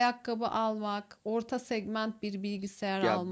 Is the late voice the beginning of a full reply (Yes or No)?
Yes